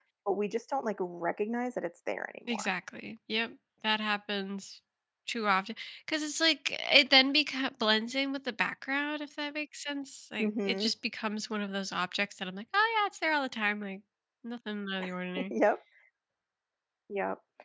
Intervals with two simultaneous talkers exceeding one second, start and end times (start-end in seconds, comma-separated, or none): none